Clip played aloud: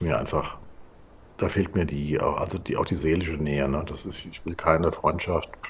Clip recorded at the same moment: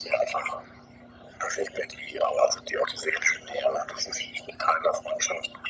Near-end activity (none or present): none